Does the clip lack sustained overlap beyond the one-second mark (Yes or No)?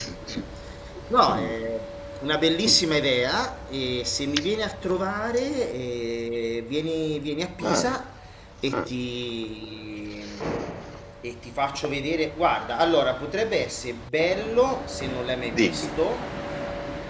Yes